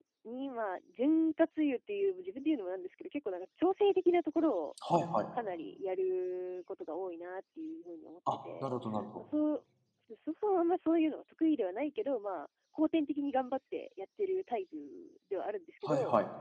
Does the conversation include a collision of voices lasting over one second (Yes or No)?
No